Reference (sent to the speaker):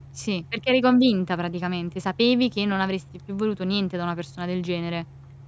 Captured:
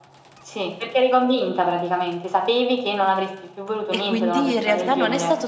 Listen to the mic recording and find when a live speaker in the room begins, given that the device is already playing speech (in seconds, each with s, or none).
3.9 s